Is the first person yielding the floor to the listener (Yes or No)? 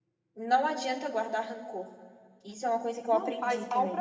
Yes